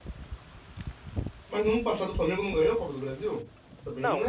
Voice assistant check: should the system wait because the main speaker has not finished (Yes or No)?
No